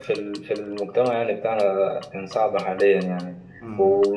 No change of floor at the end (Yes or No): Yes